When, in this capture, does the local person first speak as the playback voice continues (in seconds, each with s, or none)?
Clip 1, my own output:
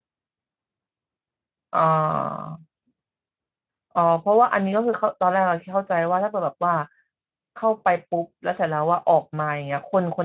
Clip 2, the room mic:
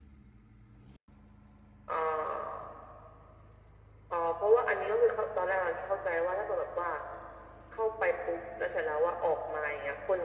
none